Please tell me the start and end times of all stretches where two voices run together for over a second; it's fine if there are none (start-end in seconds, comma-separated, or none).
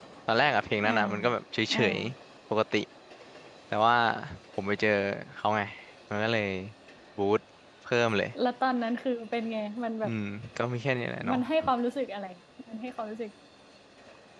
none